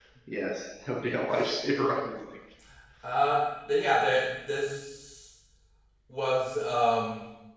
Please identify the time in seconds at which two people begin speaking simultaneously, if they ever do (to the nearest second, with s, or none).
none